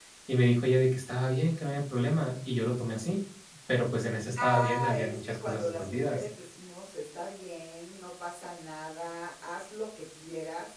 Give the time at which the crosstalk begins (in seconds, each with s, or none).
4.4 s